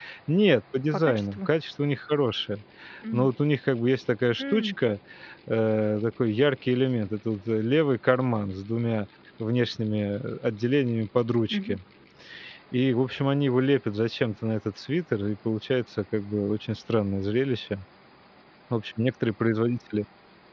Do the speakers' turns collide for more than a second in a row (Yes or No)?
No